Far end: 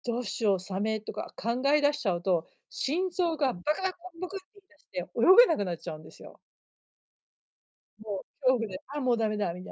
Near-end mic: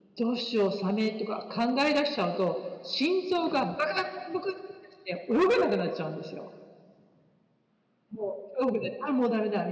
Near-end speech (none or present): none